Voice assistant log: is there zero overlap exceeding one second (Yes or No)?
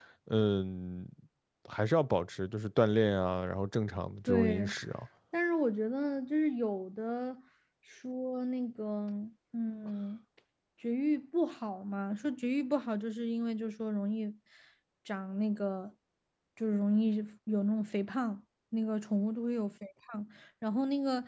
Yes